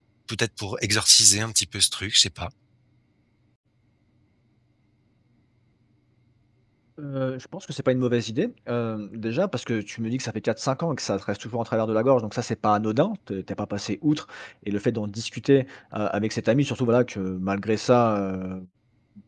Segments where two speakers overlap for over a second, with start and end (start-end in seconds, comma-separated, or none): none